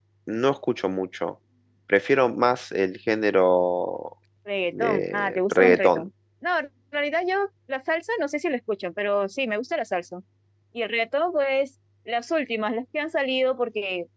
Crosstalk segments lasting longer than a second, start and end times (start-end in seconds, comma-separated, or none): 4.8-6.0